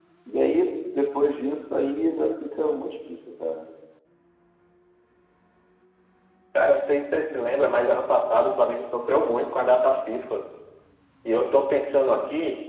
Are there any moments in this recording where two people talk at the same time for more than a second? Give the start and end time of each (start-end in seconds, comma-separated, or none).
none